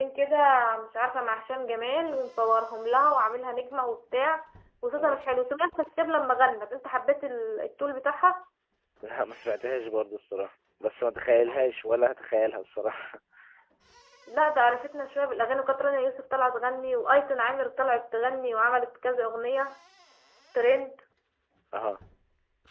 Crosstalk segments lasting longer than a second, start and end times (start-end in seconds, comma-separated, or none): none